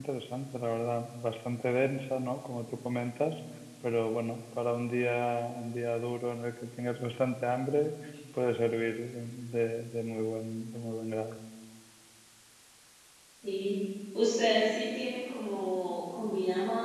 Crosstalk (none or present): none